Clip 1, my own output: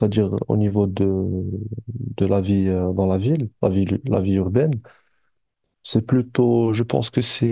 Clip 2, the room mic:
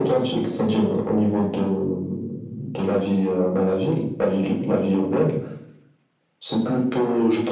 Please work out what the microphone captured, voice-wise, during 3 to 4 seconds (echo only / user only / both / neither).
echo only